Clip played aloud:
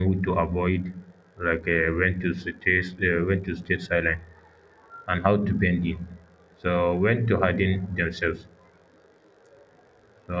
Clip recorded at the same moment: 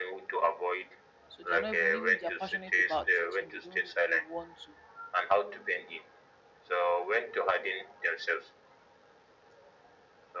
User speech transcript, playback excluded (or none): So they are not even even if they are passionate about teaching, they don't really want to